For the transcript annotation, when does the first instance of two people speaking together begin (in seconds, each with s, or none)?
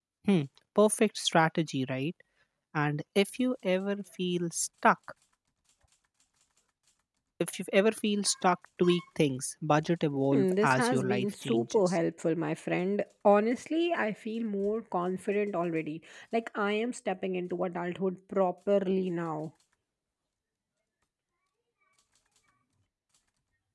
10.3 s